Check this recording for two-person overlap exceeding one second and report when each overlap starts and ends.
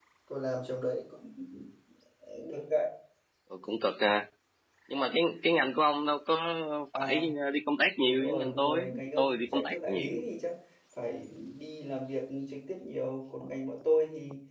8.0-10.2

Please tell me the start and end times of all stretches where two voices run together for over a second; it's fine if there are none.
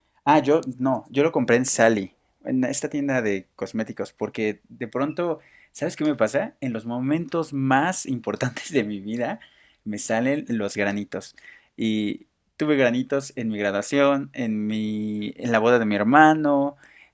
none

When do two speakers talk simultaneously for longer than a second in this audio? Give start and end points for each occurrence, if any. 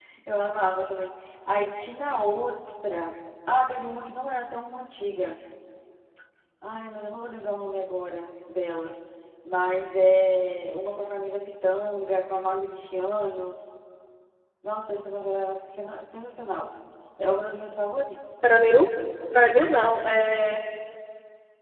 none

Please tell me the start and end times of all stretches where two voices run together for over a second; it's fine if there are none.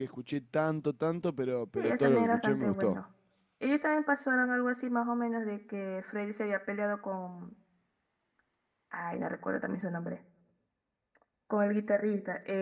1.8-3.0

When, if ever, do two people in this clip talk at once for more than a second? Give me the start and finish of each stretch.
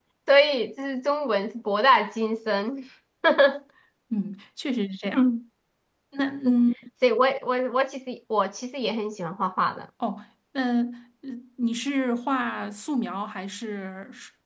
none

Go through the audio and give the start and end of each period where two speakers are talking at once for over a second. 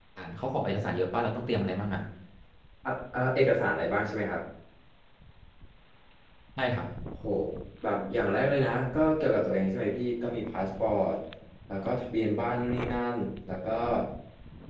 none

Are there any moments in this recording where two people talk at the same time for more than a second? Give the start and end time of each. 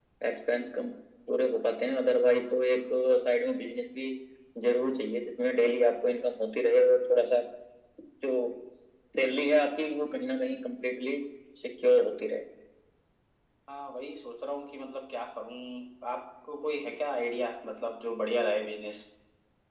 none

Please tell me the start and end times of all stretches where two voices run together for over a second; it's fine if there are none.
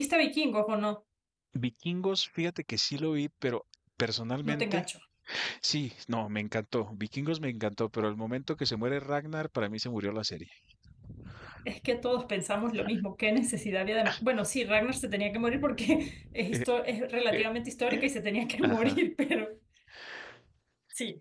none

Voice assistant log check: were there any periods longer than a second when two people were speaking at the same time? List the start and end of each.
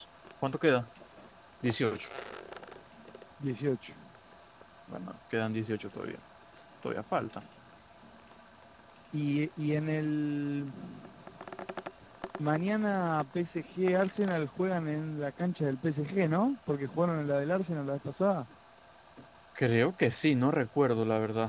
none

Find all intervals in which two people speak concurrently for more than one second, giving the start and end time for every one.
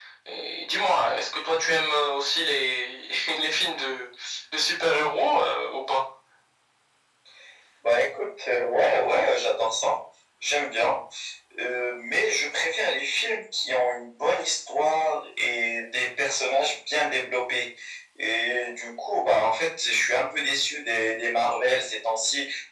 none

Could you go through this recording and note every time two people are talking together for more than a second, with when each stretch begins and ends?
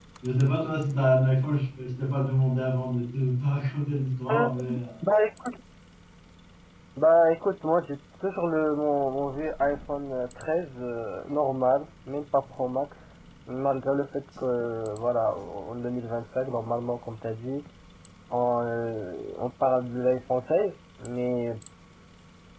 none

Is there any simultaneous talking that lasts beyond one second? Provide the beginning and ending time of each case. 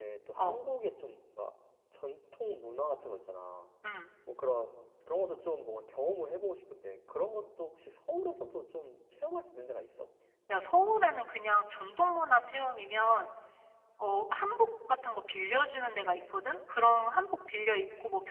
none

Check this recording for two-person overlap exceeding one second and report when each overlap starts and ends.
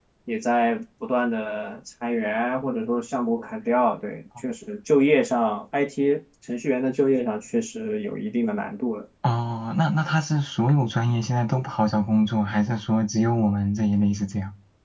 none

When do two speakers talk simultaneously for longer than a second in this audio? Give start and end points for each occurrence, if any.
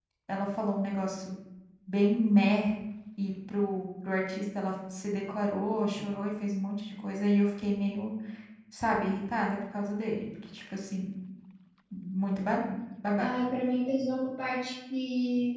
none

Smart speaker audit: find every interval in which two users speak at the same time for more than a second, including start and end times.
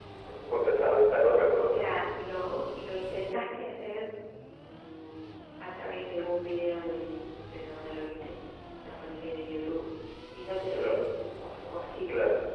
none

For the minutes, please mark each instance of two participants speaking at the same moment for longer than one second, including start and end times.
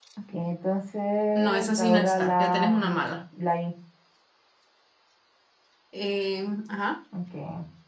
1.4-2.9

